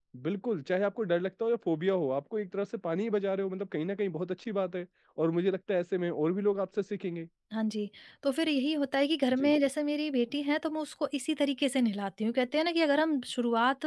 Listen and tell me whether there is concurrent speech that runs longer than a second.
No

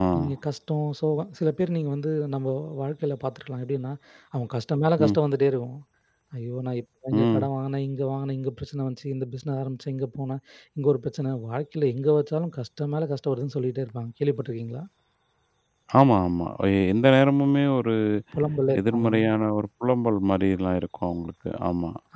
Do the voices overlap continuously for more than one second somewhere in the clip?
No

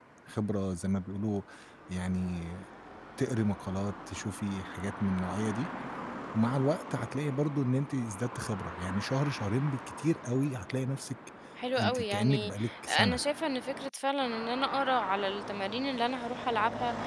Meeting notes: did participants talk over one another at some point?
Yes, from 11.8 s

